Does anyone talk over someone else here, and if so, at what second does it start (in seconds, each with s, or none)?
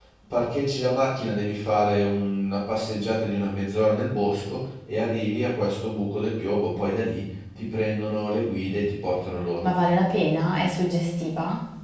none